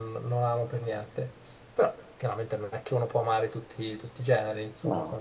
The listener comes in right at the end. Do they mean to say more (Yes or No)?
No